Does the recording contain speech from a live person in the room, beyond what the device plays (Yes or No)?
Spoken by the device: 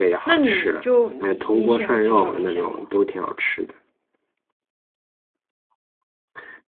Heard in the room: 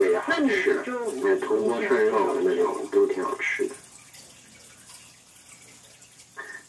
No